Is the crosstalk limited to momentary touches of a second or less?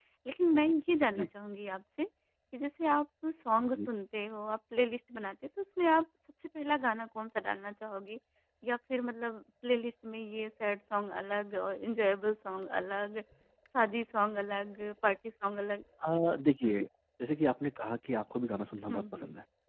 Yes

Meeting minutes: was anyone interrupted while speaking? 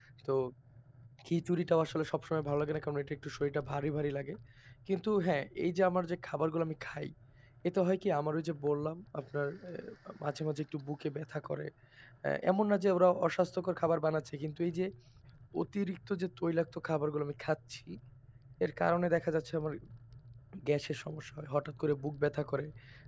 No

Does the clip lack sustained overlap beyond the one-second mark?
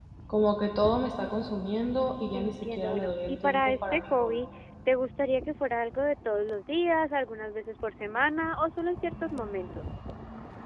No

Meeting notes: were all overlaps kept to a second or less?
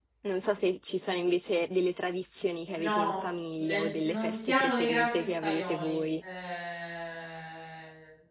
No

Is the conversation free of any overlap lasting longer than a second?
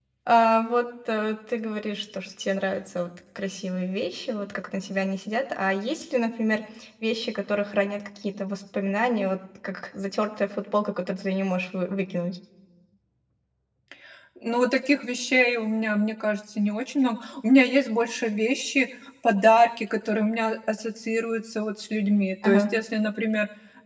Yes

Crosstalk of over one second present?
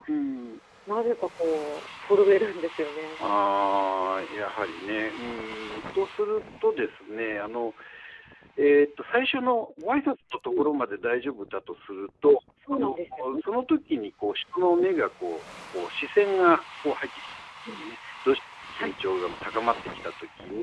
No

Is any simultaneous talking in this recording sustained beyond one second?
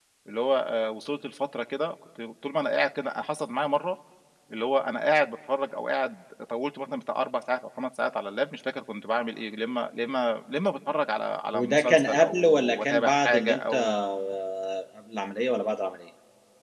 Yes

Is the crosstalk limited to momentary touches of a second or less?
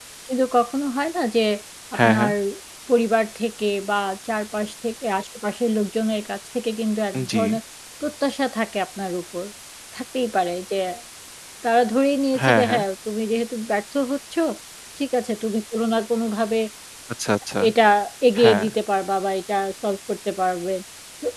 Yes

